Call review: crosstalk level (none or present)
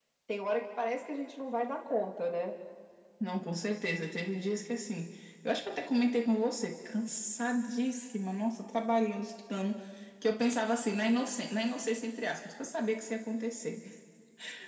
none